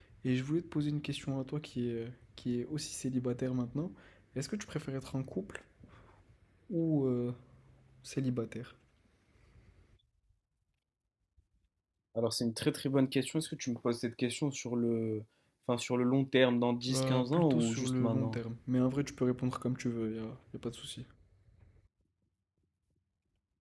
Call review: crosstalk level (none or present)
present